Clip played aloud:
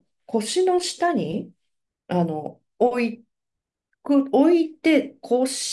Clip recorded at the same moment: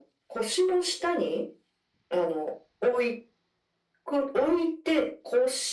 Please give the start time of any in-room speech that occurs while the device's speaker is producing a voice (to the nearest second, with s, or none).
none